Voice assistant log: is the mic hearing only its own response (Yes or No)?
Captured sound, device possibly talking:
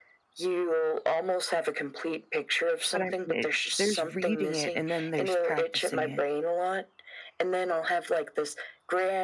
No